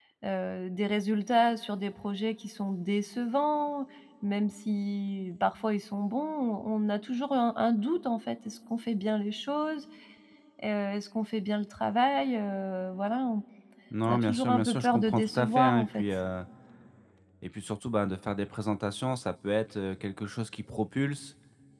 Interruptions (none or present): present